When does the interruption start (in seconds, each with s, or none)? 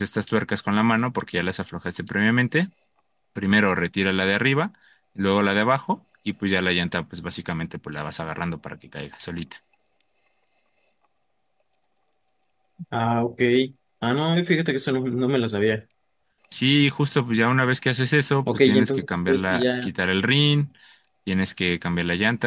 18.5 s